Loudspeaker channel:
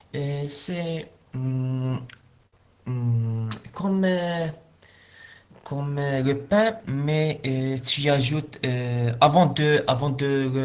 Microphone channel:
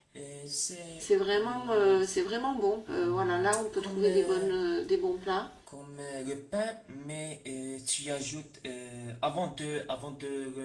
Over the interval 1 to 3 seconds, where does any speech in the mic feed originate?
both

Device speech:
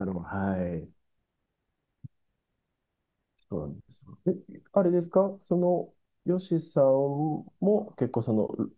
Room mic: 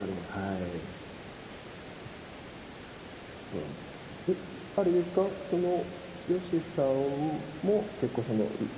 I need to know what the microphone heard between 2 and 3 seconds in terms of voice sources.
neither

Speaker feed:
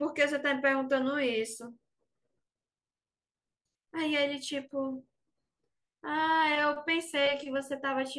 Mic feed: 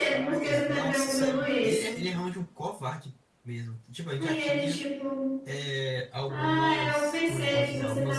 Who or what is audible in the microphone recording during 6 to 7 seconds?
both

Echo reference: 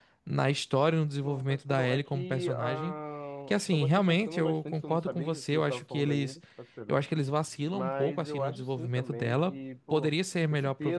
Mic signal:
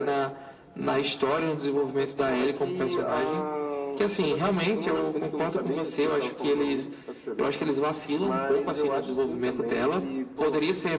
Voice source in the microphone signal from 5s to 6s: echo only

